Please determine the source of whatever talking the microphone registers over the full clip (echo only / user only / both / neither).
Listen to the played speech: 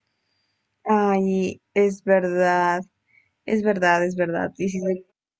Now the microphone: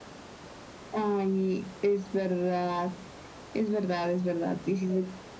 echo only